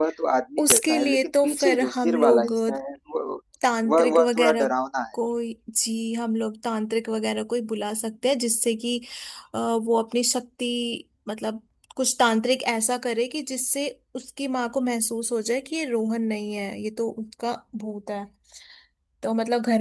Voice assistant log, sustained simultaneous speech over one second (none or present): present